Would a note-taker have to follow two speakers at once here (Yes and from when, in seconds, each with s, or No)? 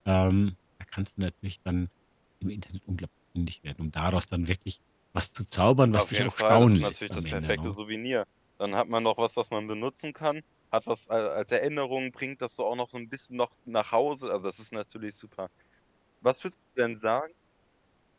Yes, from 6.0 s